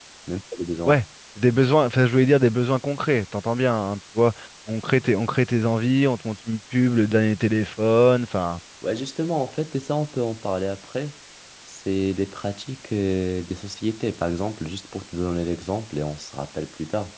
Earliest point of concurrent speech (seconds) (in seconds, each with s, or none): none